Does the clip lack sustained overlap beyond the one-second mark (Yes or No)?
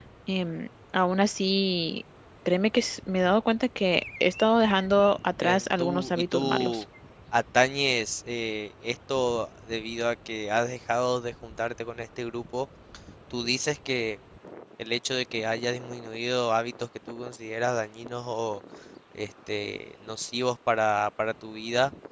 No